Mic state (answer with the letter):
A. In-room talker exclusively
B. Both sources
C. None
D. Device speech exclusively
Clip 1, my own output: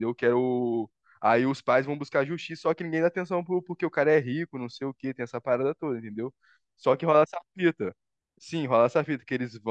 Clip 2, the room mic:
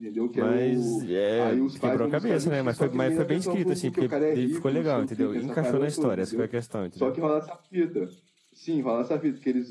B